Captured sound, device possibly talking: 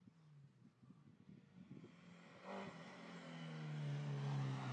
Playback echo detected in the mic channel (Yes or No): No